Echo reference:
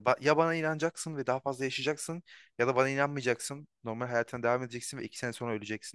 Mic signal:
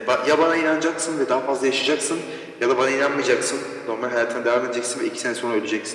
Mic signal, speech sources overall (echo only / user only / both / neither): echo only